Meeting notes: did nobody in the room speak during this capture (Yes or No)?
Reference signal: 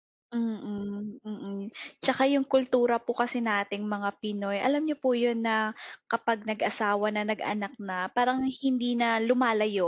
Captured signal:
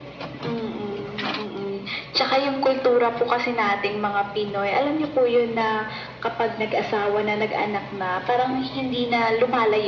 Yes